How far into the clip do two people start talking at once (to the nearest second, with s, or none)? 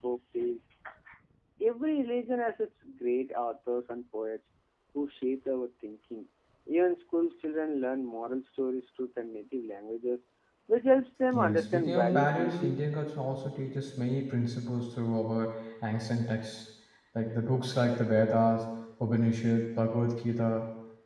11 s